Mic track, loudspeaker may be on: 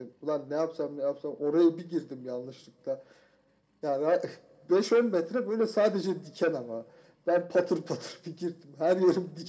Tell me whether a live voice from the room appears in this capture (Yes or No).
No